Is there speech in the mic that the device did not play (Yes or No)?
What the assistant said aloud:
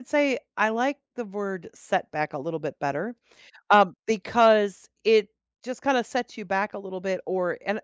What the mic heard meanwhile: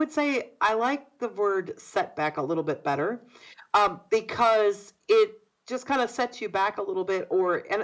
No